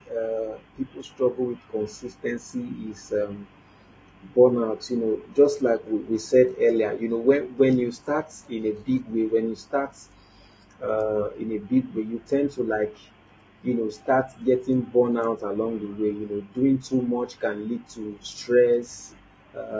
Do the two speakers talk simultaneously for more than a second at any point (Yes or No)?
No